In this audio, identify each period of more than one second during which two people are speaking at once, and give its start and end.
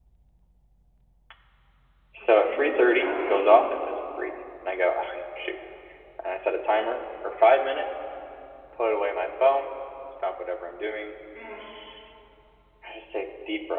2.4-3.6

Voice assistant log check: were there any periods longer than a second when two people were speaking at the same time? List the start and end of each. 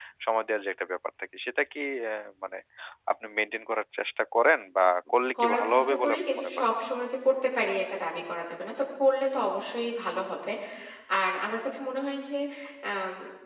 5.4-6.6

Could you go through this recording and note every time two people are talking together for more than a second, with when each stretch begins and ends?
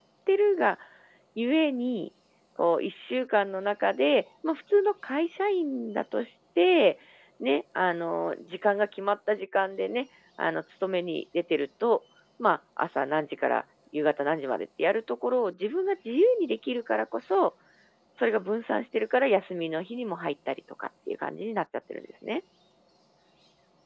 none

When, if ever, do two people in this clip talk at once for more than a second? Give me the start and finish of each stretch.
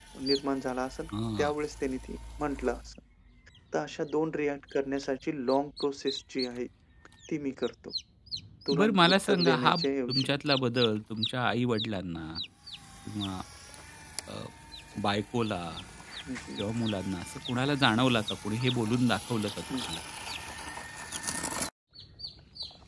8.8-10.3

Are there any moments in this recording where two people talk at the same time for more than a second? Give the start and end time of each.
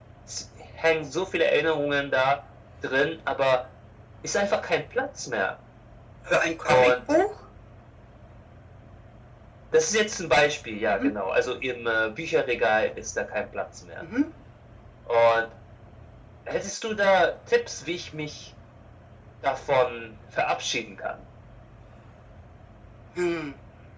none

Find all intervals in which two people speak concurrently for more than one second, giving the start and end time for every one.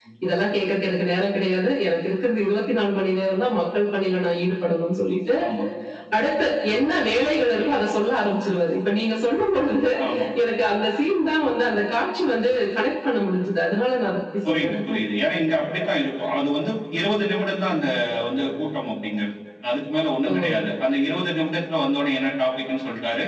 none

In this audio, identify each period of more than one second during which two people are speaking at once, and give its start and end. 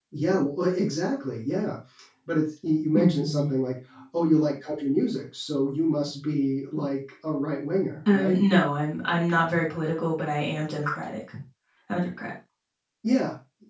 none

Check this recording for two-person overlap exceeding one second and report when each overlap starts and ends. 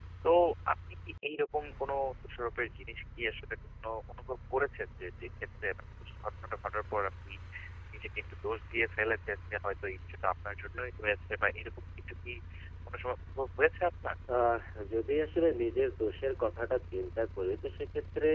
none

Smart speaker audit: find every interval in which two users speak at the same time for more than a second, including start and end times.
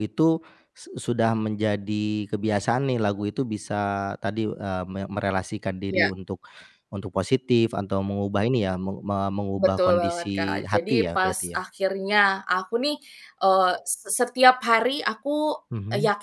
9.6-11.6

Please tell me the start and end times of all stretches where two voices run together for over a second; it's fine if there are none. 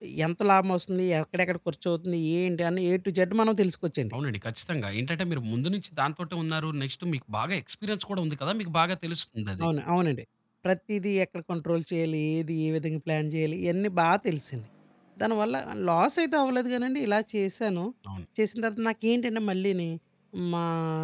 none

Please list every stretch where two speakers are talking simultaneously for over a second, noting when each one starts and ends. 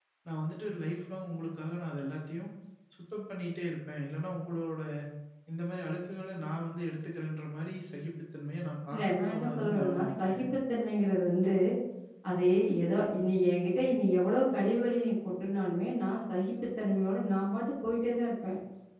8.9-10.4

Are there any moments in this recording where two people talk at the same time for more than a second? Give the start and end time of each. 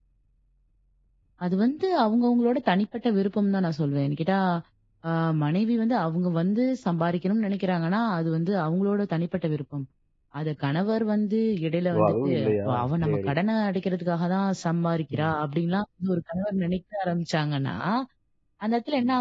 12.0-13.3

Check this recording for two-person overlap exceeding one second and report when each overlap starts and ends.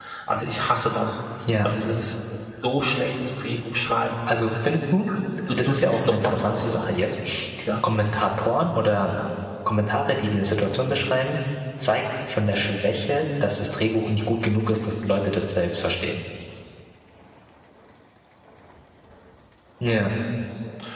5.5-6.8

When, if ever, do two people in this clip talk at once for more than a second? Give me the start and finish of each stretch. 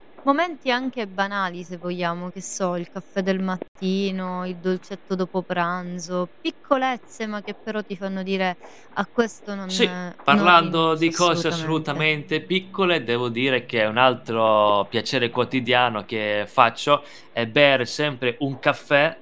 10.3-12.1

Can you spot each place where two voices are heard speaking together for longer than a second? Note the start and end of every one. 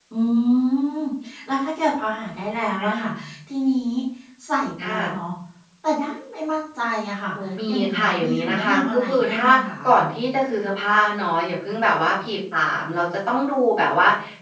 7.7-9.5

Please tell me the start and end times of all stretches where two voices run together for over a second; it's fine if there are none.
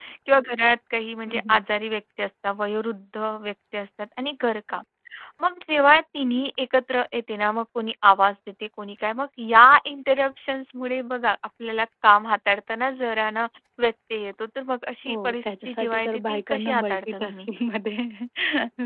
15.1-17.5

